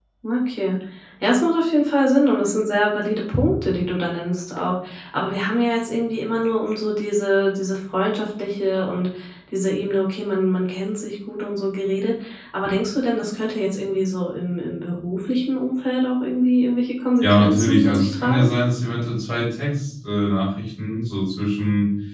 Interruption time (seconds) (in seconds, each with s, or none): 17.2 s